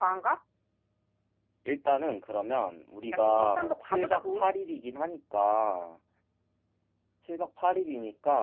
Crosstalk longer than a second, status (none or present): present